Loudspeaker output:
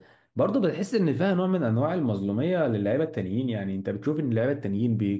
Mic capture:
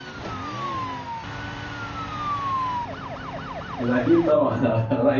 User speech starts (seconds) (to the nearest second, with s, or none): 4 s